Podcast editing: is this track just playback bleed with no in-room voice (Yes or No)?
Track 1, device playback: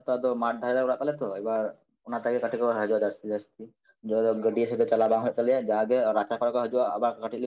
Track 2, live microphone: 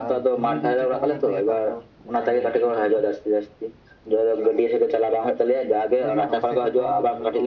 No